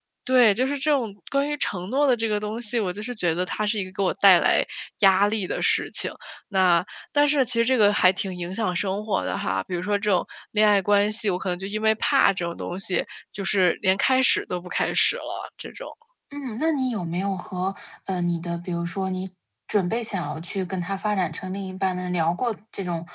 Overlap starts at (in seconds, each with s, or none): none